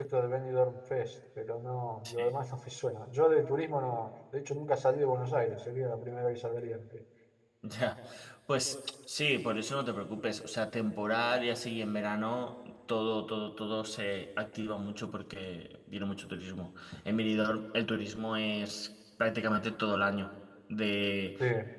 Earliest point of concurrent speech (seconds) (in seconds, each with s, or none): none